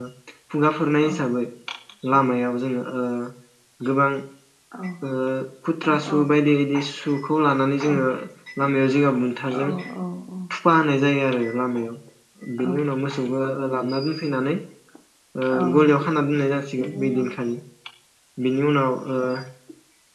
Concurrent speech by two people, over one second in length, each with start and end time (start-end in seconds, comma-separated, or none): none